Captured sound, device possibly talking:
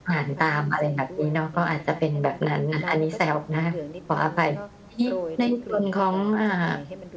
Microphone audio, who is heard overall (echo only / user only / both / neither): both